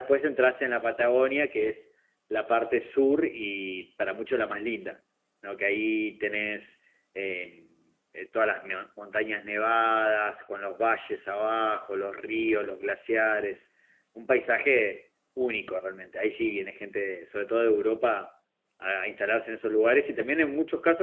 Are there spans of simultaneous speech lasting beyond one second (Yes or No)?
No